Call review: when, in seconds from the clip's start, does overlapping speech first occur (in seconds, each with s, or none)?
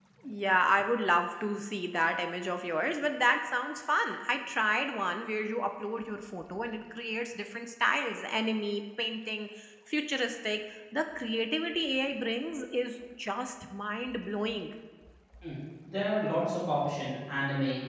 none